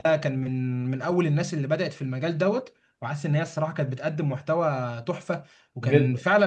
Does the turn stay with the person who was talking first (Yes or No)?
Yes